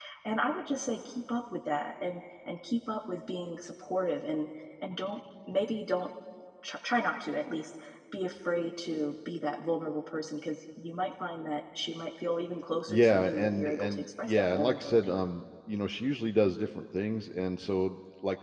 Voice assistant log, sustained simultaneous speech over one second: present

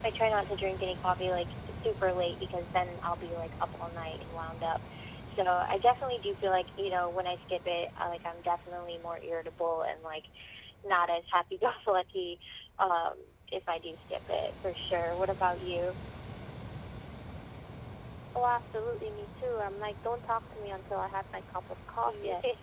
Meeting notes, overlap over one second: none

